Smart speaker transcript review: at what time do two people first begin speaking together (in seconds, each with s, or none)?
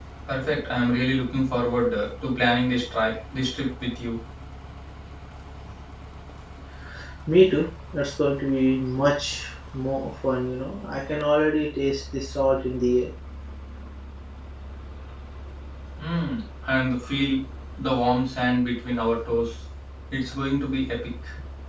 none